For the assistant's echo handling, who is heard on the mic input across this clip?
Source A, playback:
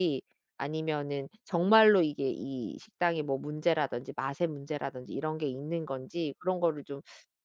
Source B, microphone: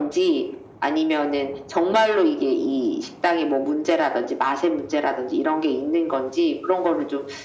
echo only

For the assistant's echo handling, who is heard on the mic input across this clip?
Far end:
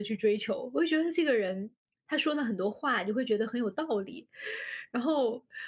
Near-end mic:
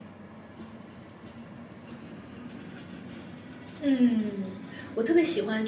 user only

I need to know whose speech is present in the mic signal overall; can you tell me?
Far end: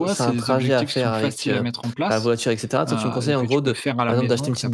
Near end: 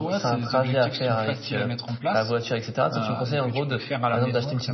echo only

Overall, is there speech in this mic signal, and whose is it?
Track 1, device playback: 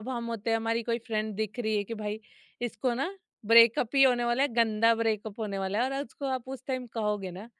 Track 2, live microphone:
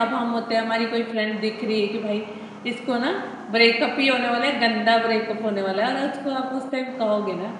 echo only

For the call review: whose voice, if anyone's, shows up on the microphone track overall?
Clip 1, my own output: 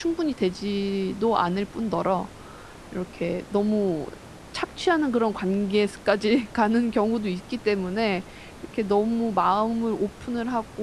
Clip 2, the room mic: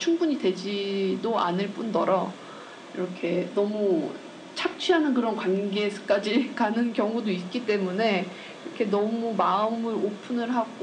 echo only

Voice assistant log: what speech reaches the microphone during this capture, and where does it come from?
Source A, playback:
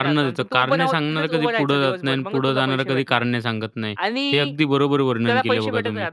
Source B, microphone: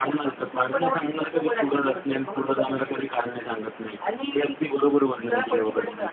echo only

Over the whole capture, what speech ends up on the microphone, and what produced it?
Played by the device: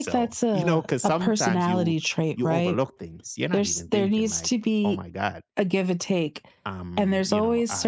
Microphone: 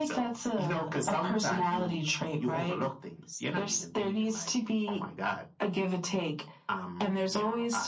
echo only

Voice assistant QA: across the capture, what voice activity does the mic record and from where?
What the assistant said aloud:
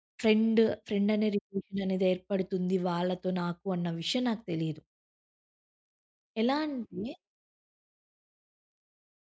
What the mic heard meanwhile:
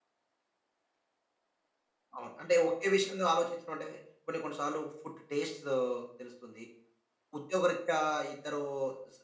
user only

